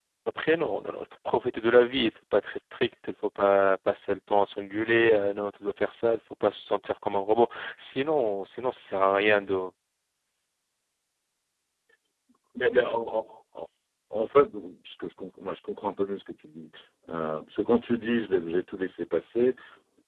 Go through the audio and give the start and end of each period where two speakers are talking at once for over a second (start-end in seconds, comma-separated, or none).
none